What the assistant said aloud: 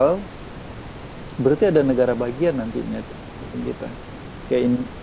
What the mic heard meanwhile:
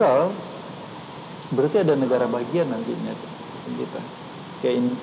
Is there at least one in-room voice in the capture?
Yes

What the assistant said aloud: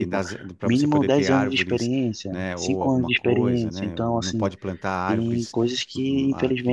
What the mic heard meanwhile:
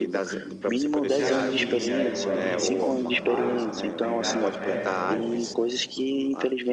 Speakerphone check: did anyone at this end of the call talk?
Yes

